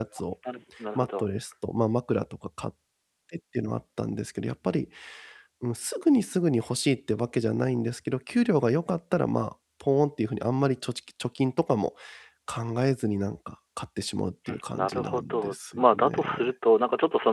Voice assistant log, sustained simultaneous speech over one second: present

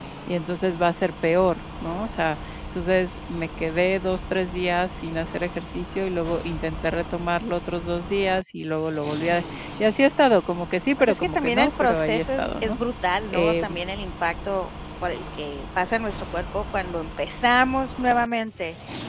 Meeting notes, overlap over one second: present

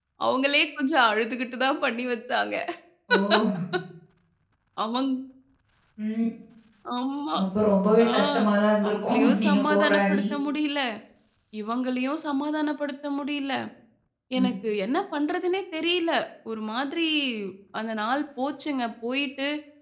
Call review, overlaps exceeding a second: present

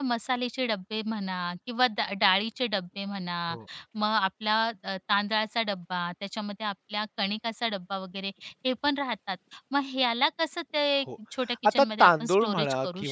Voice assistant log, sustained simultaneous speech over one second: present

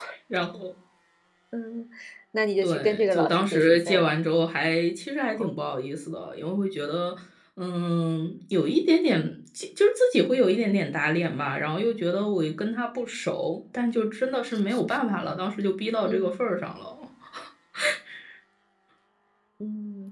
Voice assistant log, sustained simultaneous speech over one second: present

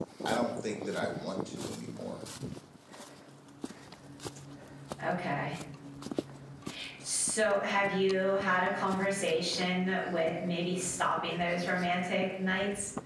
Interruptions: none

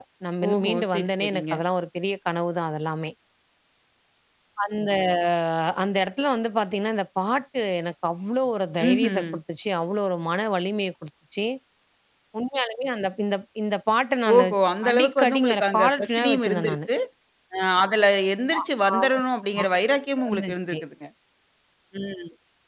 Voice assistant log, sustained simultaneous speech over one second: present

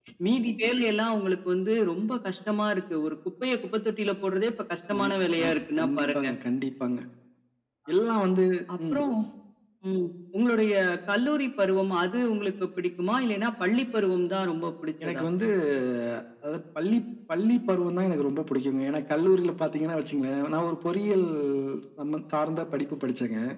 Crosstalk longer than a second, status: present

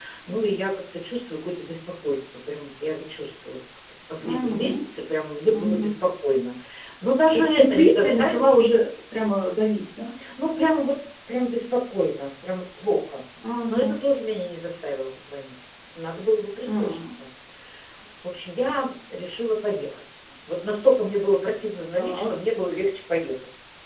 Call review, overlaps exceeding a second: present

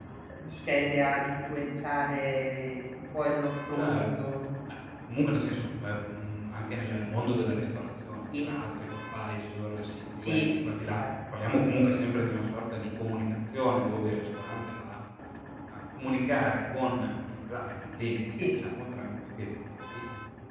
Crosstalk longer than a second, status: none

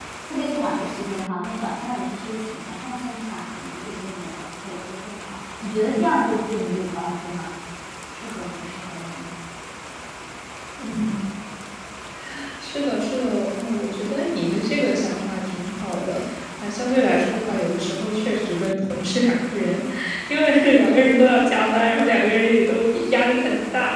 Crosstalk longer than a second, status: none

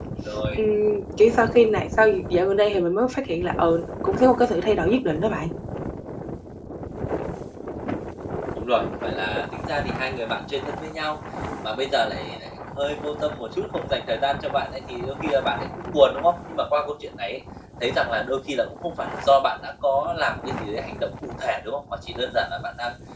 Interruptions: none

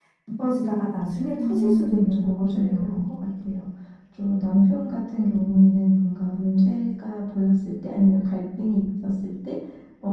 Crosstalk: present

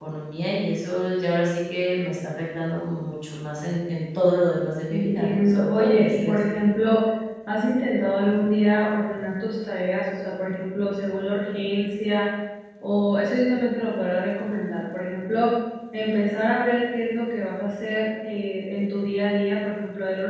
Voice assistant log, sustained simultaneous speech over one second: present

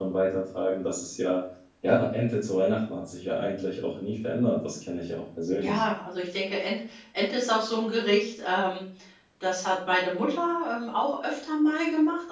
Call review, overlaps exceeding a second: none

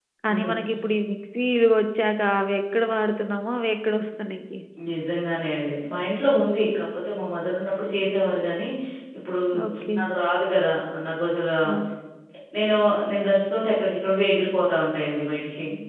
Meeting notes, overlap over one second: none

